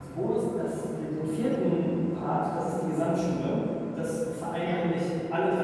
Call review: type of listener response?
listening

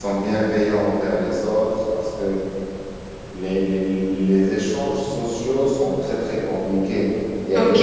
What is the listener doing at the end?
taking over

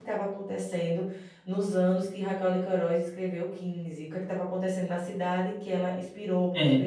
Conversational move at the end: listening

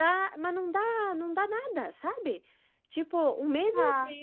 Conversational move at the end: listening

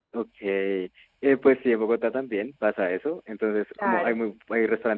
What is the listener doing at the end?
listening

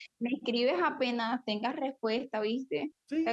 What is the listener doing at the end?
taking over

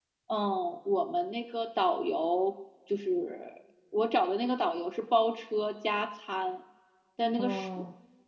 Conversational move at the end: listening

